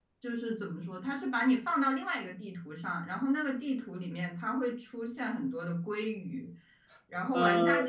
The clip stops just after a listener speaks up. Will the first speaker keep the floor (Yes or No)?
Yes